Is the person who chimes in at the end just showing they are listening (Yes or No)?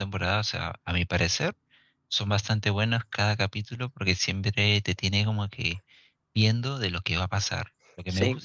Yes